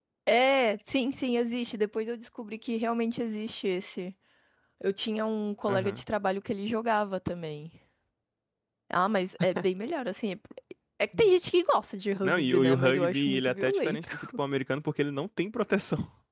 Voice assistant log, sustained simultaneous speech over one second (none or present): present